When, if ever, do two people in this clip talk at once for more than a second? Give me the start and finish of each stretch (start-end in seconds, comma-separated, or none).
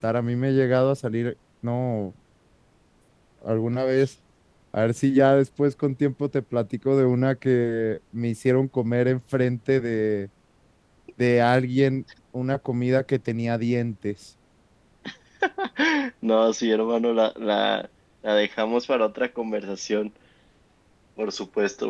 none